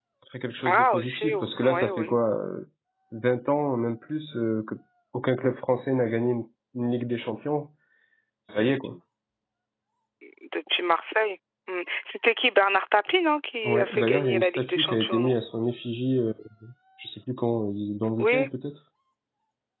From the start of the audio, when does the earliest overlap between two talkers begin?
0.7 s

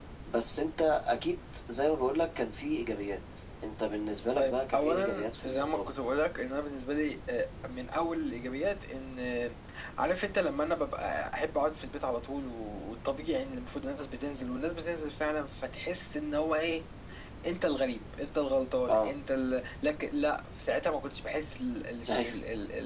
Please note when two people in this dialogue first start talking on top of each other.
4.3 s

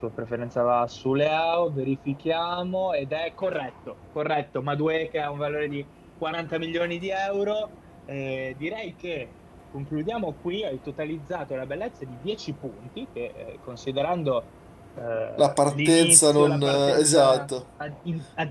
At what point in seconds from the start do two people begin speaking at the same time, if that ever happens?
15.4 s

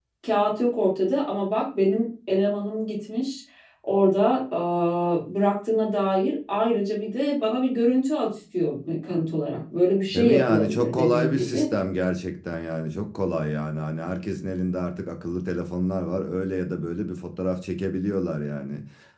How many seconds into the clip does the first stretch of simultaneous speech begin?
10.1 s

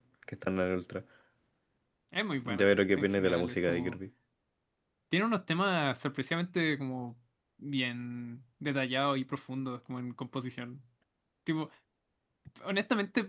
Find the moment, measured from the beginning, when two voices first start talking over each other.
2.6 s

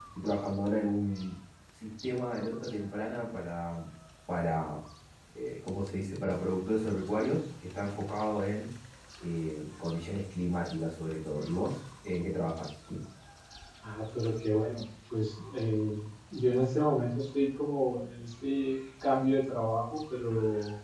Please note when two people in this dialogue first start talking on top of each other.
none

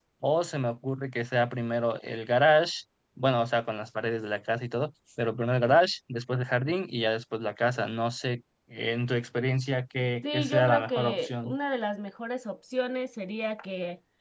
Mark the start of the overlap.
10.2 s

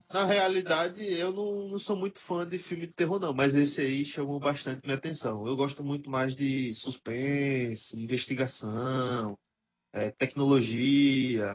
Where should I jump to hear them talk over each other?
none

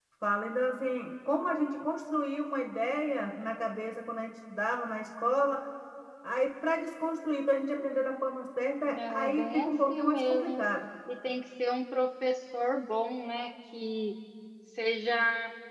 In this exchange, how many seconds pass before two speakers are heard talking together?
8.8 s

